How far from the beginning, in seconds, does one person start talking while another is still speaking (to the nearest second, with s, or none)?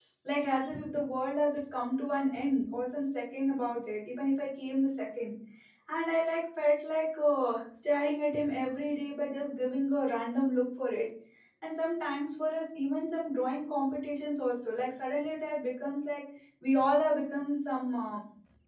none